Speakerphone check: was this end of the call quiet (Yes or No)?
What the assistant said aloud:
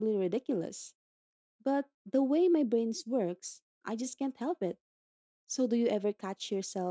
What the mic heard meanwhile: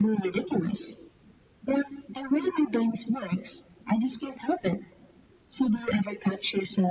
Yes